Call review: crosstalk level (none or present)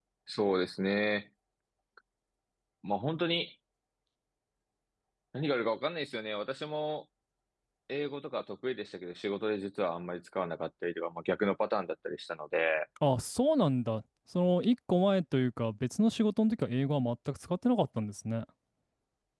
none